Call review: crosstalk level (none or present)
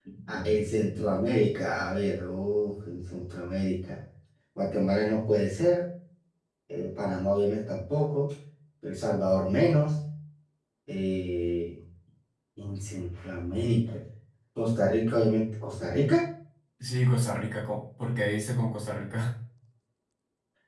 none